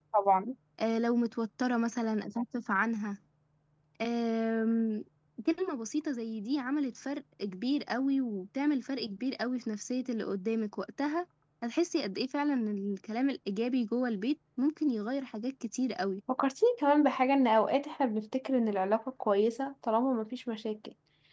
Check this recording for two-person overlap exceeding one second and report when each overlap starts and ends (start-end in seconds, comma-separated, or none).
none